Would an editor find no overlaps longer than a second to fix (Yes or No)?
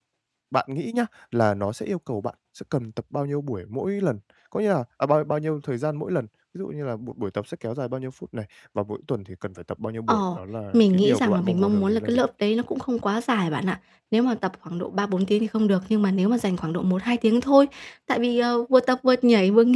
No